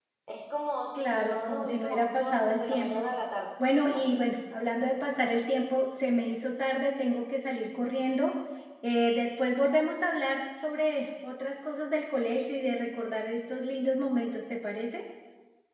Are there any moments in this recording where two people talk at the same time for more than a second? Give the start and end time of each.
0.9-3.1

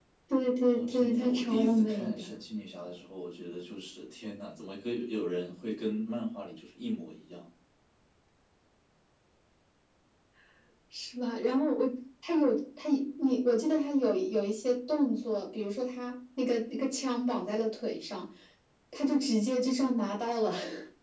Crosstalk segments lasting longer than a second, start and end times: 0.7-2.3

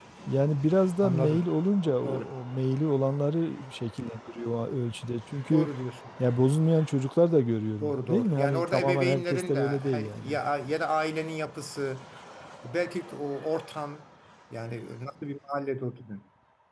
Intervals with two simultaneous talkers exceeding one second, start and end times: 7.8-10.4

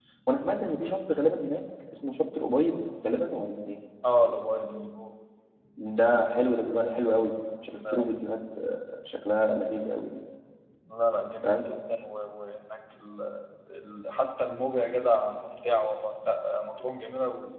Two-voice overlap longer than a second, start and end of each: none

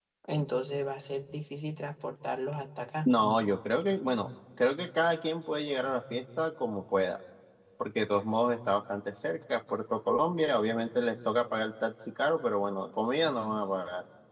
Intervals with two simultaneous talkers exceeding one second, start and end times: none

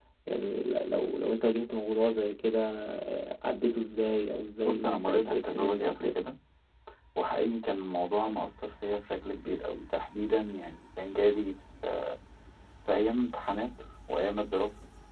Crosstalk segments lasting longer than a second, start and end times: 4.6-6.2

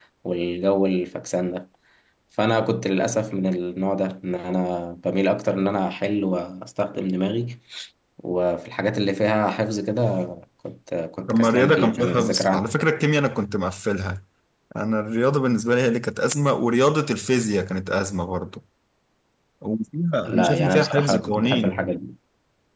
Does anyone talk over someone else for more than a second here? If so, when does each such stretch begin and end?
11.3-12.6, 20.2-21.9

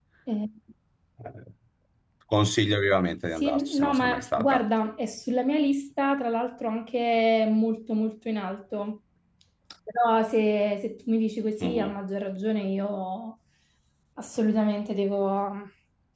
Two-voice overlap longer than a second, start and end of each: 3.4-4.7

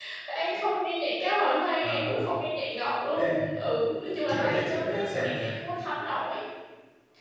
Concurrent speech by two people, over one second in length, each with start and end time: 4.4-5.6

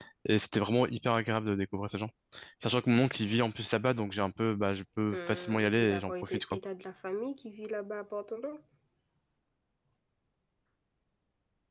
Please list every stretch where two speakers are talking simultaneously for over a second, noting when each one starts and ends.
5.1-6.4

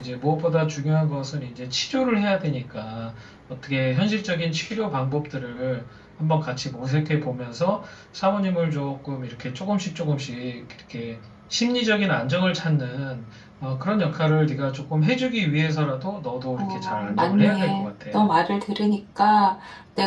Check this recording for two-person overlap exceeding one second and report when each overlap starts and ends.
16.6-18.3

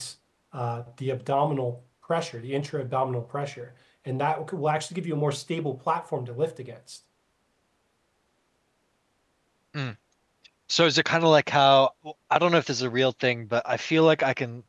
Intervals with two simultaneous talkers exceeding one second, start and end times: none

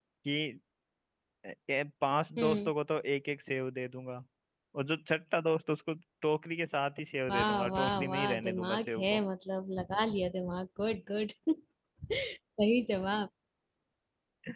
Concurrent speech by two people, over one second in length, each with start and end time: 7.3-9.2

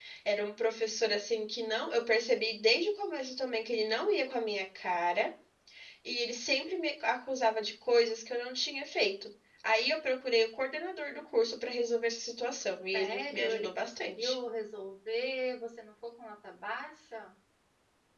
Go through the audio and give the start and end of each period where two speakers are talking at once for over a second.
12.9-14.4

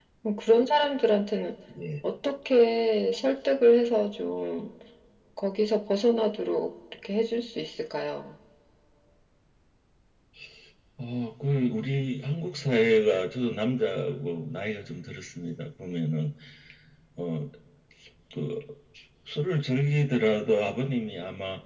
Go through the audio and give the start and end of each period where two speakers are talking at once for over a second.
none

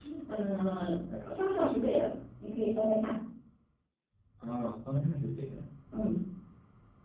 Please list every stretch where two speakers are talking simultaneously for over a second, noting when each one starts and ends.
none

